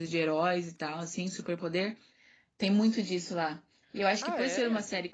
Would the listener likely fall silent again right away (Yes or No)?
Yes